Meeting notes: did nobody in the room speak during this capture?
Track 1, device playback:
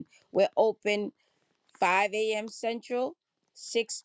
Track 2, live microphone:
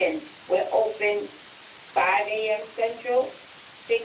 Yes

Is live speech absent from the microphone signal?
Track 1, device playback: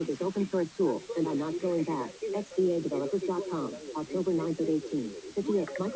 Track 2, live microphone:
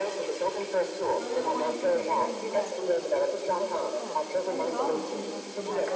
No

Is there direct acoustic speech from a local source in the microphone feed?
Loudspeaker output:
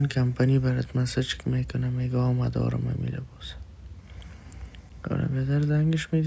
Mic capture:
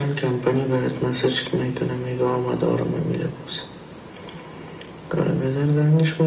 No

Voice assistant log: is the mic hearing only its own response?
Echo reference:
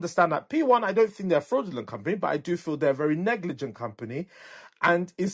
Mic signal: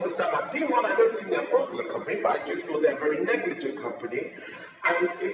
Yes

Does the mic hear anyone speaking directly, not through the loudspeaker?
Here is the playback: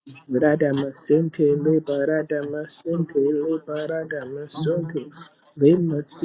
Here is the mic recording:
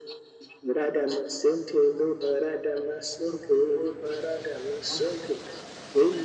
No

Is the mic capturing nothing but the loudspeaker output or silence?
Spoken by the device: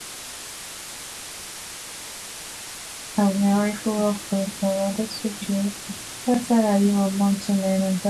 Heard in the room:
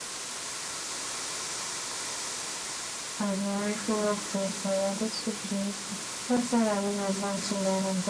Yes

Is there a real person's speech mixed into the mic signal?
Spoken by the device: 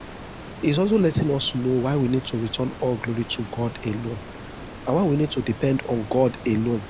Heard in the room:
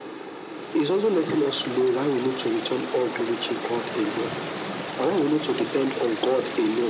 No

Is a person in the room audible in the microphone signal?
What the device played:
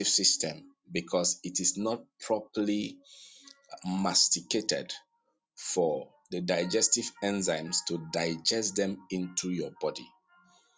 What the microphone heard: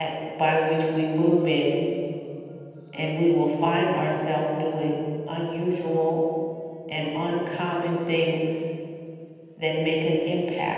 Yes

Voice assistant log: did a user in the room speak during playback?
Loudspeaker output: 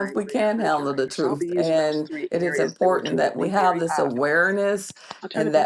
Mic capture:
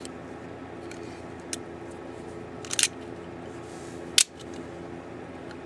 No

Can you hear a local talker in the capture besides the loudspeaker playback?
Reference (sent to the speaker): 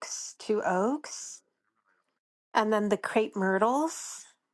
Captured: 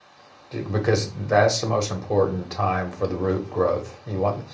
Yes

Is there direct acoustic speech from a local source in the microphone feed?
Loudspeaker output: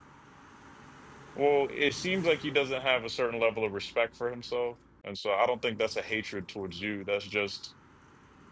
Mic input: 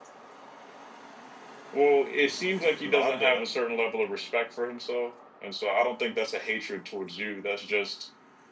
Yes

